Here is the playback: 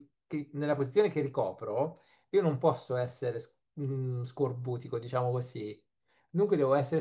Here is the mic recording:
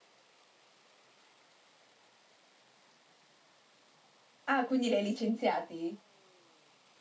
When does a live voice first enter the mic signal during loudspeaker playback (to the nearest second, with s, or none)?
4 s